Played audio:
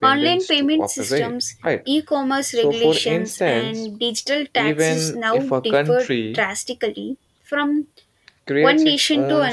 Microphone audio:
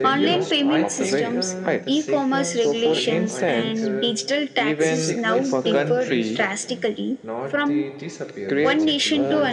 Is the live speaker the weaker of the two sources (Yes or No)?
Yes